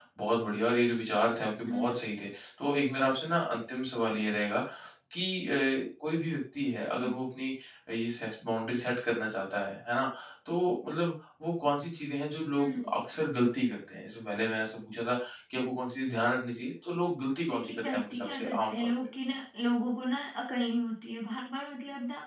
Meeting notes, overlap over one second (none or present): present